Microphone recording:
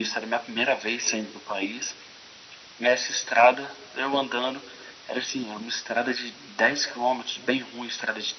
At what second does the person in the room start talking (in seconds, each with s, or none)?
none